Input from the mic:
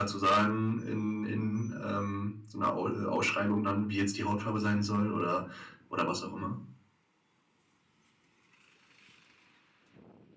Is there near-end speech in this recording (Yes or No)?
Yes